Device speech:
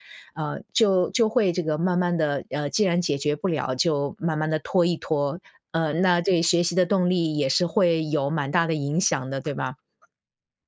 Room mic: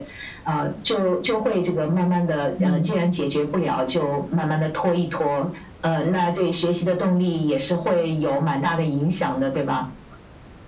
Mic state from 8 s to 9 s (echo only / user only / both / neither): echo only